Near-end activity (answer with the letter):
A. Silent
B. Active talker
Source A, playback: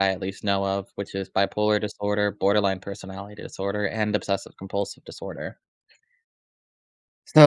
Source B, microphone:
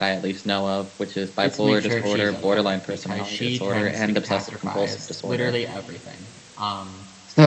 B